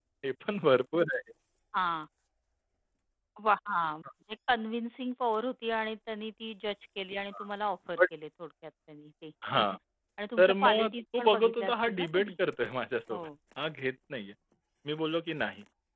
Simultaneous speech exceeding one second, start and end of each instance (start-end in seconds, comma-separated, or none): 10.4-12.3